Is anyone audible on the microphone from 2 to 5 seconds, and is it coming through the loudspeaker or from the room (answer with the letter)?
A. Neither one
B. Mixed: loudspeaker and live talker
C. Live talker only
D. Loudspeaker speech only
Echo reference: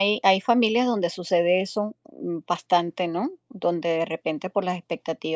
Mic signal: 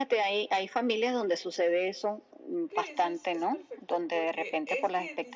B